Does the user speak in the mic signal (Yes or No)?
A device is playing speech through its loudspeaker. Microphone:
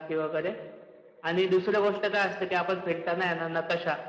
No